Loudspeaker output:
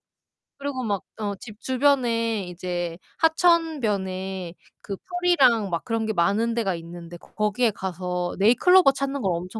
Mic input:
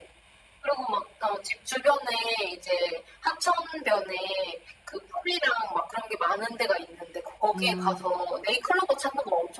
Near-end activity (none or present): present